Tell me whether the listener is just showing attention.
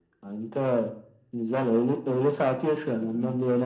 No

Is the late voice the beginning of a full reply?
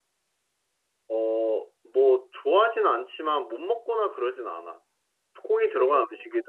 No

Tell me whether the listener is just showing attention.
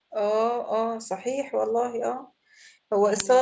Yes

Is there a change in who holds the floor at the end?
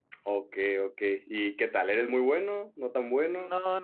Yes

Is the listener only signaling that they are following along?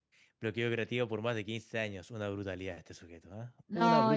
No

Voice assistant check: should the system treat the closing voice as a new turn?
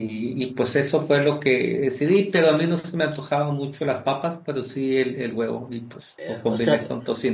Yes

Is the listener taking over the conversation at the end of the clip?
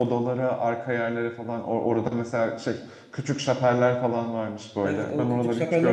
Yes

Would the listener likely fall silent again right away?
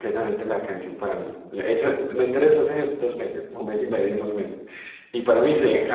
Yes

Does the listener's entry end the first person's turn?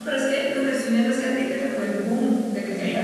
Yes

